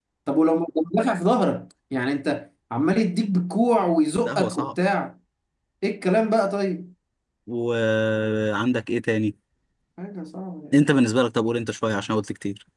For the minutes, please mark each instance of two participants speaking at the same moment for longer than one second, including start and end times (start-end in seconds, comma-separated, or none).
none